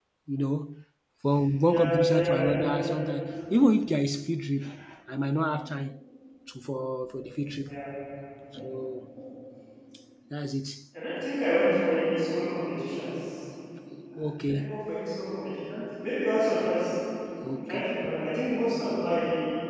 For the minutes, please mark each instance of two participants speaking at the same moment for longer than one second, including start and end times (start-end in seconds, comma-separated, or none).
1.6-2.9